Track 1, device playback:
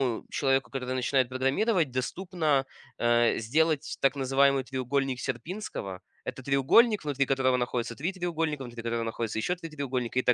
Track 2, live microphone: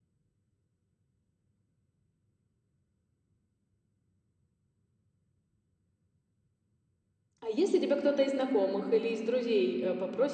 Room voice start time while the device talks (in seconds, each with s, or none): 7.4 s